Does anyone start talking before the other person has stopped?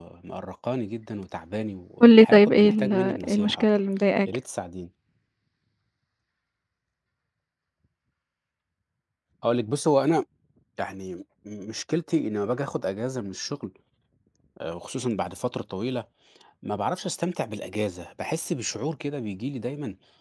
Yes, from 2.0 s

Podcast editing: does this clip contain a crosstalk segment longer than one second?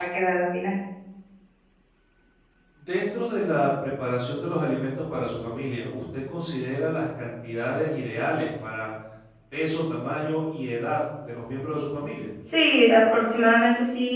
No

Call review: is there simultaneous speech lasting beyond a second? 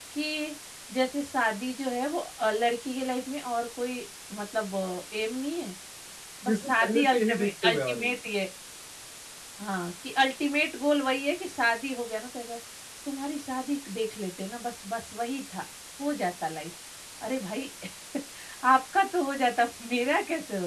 Yes, from 6.5 s

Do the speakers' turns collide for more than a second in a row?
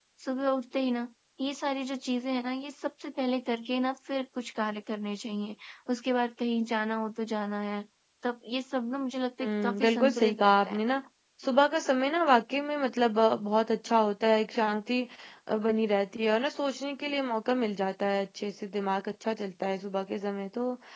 Yes, from 9.4 s

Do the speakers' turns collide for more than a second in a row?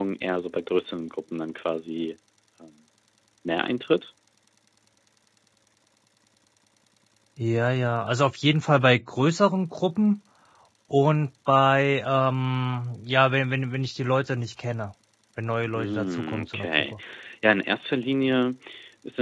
Yes, from 15.8 s

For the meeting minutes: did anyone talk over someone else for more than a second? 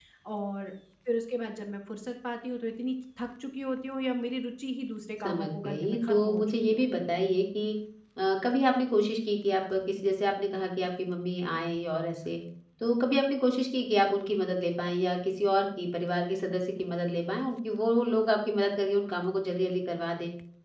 Yes, from 5.2 s

